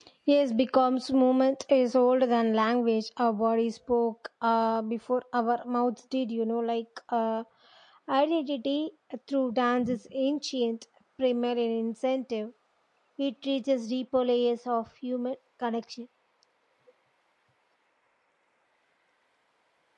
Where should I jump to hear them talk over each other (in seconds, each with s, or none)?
none